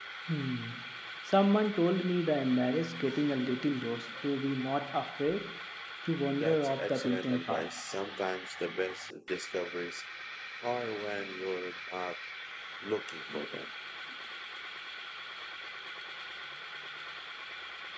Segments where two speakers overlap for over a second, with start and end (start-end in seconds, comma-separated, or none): 6.4-7.7